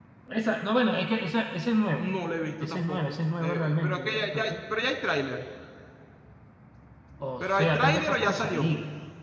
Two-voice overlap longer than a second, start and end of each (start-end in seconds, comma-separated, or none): 2.6-4.5, 7.4-8.7